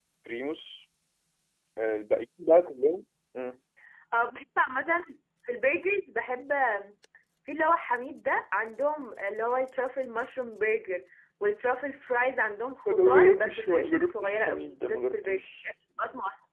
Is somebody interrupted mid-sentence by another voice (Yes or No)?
Yes